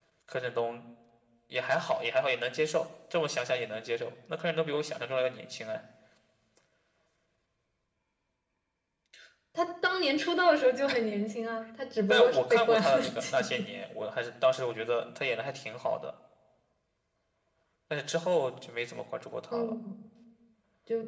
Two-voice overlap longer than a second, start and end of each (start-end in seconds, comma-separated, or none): 12.1-13.7